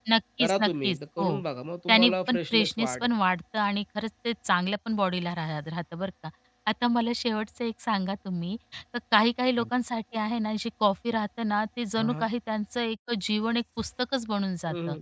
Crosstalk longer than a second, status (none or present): present